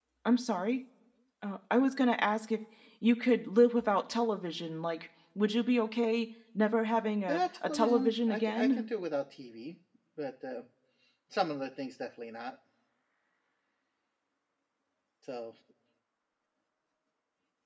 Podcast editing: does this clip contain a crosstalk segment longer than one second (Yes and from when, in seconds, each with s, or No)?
Yes, from 7.3 s